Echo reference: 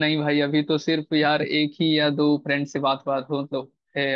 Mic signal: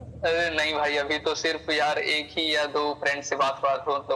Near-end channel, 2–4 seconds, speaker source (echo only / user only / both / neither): echo only